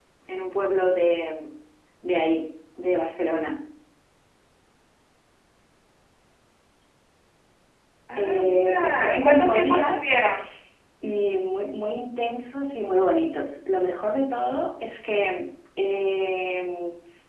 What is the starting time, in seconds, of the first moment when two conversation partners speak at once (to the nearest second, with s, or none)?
8 s